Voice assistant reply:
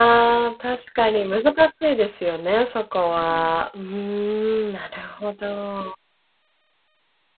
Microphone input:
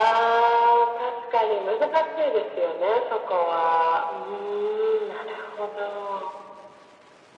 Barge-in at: none

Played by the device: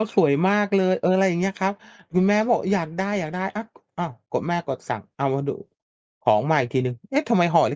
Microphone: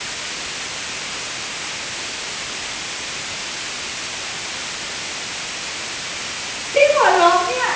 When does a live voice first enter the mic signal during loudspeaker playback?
6.7 s

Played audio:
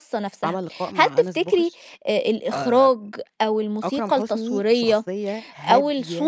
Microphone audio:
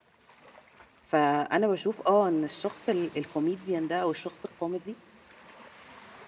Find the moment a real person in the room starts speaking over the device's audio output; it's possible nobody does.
1.0 s

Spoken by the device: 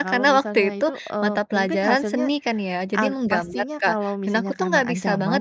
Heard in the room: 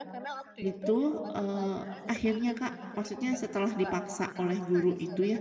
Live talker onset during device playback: 0.7 s

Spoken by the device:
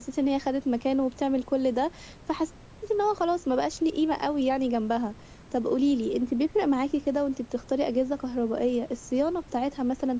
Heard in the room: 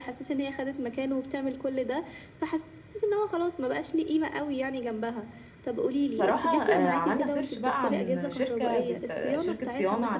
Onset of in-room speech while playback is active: 6.1 s

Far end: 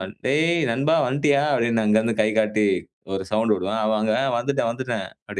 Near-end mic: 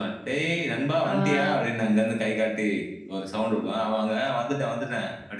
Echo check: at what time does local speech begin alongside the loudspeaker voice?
1.0 s

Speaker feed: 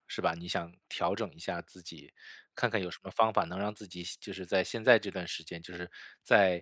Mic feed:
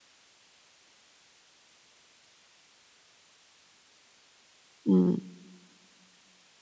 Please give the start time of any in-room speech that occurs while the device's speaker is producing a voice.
4.8 s

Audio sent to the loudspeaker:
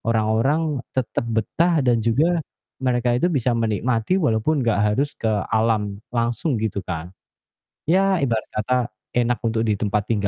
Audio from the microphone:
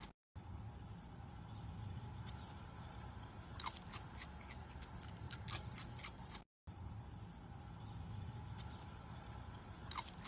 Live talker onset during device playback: none

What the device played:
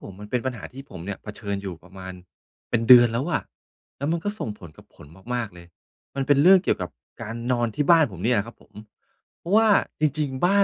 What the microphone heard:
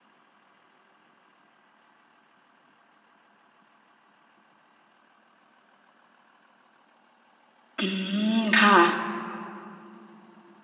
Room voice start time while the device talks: 7.8 s

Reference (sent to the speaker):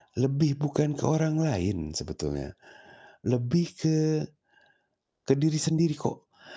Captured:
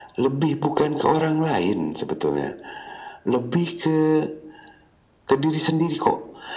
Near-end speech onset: none

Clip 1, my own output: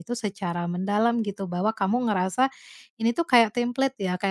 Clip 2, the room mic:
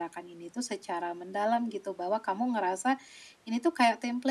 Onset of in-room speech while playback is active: none

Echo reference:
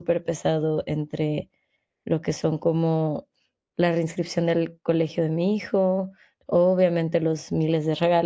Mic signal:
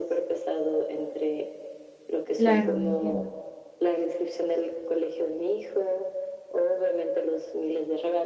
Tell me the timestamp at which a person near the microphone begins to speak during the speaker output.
2.4 s

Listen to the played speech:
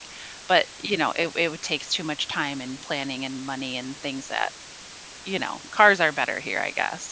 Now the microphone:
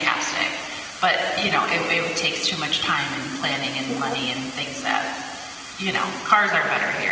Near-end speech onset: 3.9 s

